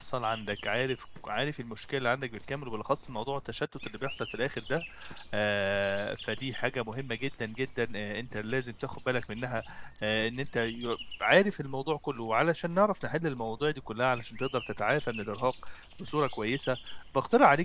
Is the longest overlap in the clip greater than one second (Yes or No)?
No